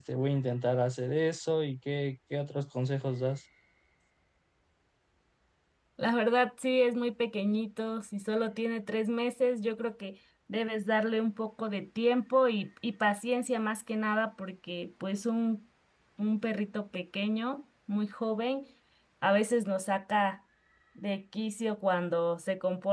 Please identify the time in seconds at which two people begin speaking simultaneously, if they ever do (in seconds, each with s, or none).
none